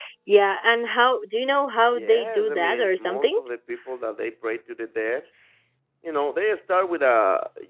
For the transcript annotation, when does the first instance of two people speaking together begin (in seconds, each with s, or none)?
1.9 s